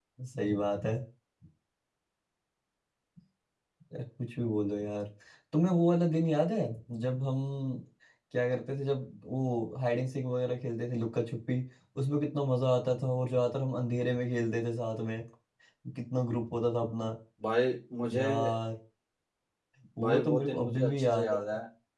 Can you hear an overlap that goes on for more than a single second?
Yes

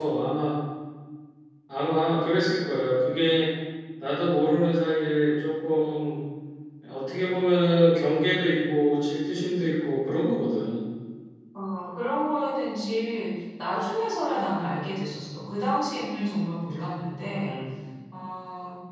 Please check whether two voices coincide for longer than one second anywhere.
No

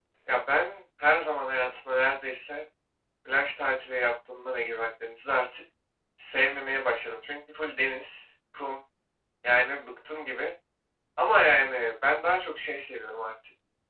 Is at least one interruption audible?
No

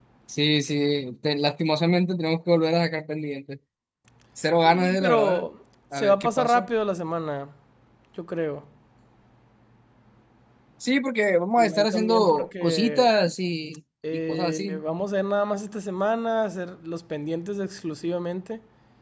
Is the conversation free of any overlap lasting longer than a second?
No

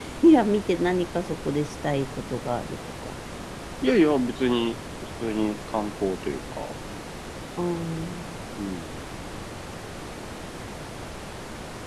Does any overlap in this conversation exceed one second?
No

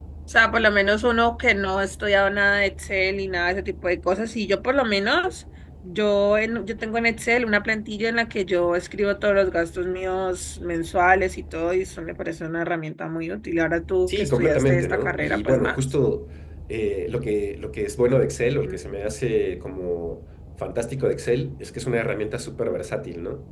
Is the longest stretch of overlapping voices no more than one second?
No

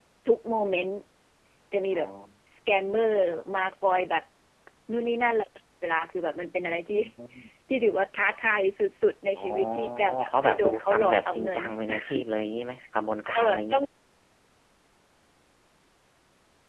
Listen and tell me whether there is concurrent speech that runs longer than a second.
Yes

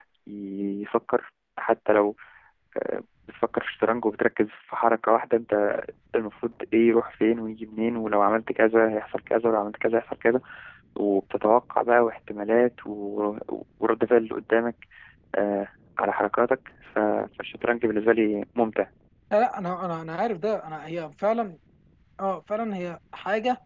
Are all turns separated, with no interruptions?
Yes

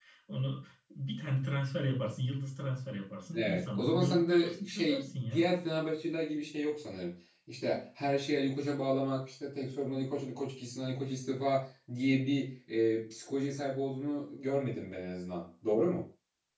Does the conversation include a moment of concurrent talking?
Yes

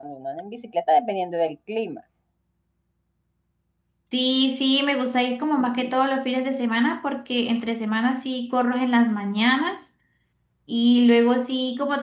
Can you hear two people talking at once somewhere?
No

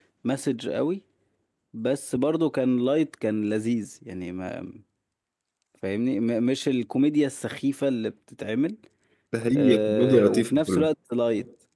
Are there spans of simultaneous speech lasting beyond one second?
Yes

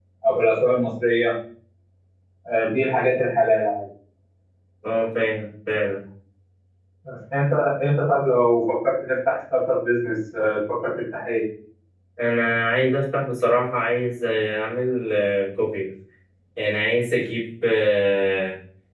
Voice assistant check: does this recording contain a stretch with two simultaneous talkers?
No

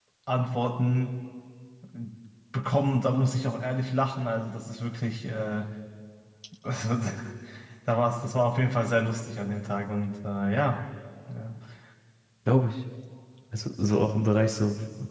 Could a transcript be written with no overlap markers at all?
Yes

